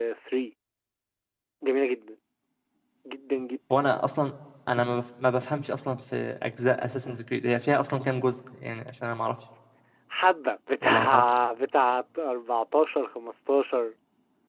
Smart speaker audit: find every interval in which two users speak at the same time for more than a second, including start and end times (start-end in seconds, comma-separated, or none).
none